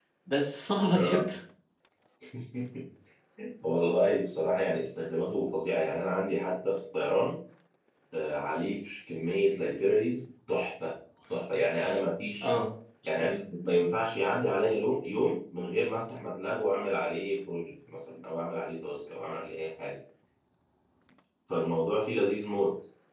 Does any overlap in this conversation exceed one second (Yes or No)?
No